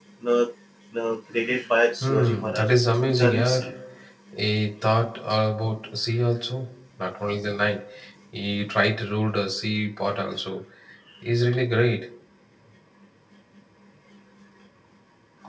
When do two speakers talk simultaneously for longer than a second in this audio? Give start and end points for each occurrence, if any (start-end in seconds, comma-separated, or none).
2.0-3.6